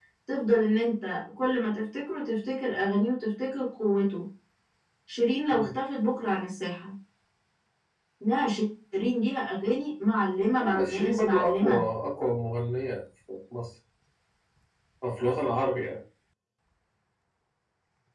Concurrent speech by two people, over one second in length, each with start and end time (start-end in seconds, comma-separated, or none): 10.6-11.8